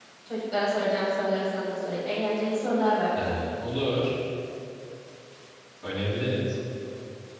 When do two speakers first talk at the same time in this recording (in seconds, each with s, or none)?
none